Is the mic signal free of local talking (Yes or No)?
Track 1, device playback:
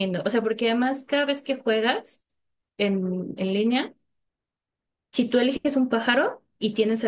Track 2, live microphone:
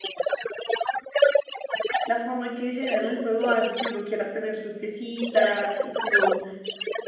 No